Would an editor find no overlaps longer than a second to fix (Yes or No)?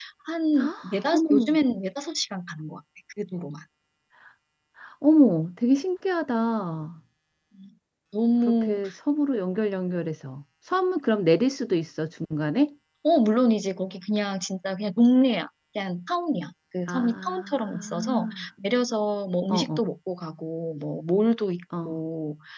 No